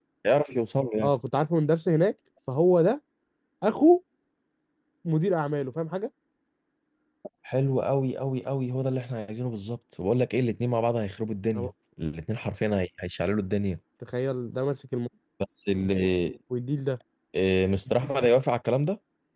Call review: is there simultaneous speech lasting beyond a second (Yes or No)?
No